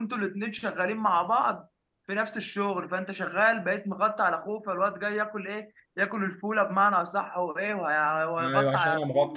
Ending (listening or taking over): taking over